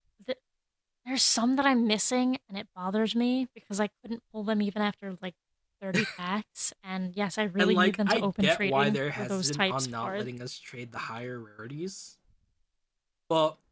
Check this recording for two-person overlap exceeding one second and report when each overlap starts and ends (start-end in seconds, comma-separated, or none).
7.6-10.3